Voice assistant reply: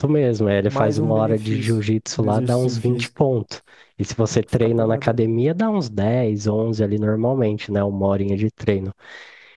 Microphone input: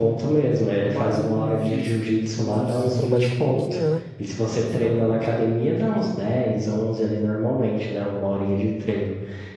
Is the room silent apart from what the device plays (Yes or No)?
No